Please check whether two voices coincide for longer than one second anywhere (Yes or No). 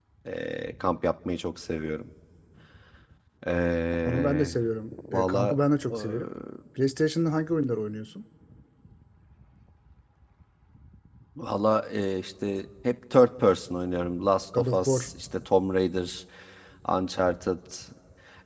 No